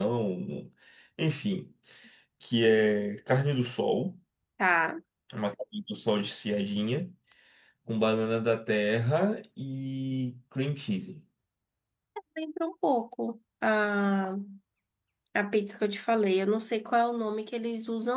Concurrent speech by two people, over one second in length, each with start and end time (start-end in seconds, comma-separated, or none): none